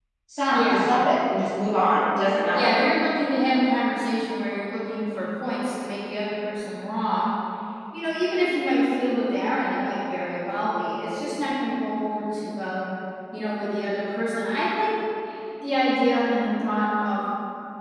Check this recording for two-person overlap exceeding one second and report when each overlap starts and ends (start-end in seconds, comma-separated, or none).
none